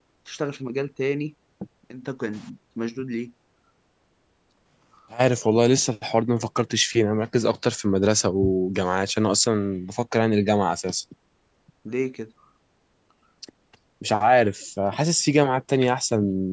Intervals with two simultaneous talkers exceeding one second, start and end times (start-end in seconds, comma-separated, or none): none